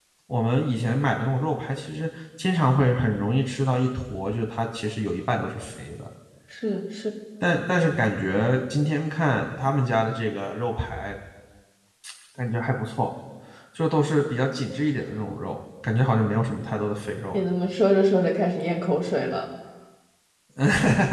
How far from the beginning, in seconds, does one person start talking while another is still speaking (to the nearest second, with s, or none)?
none